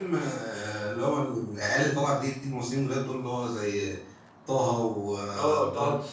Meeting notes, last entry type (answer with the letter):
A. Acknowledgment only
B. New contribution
B